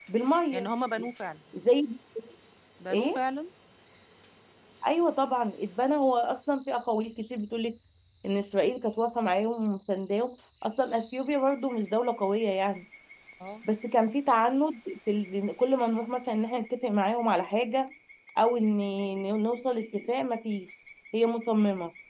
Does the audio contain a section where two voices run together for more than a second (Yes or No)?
No